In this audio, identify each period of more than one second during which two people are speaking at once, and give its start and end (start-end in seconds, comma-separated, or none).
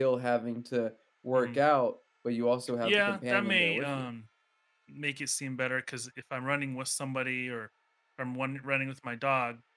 2.8-4.0